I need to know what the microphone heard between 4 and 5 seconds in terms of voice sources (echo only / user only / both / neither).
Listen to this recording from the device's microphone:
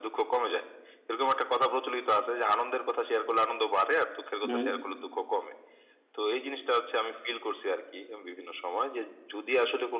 both